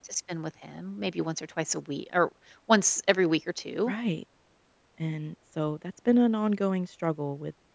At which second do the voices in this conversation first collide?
none

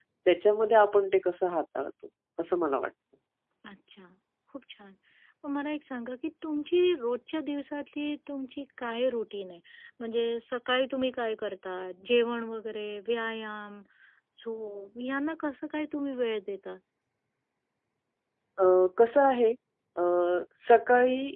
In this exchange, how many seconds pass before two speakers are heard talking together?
none

